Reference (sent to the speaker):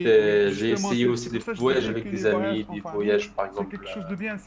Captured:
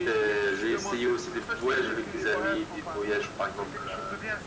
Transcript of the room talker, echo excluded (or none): none